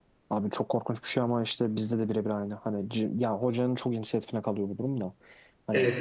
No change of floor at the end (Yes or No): No